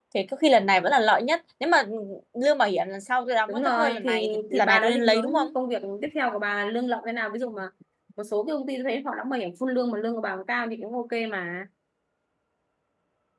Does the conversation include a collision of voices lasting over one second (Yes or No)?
Yes